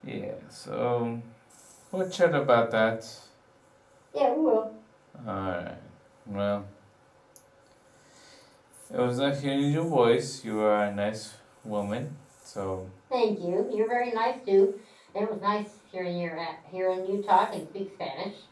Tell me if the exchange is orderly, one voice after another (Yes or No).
Yes